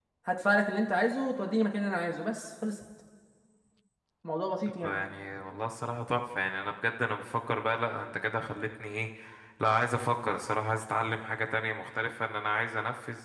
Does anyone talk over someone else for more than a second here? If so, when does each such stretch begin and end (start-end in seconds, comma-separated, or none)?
none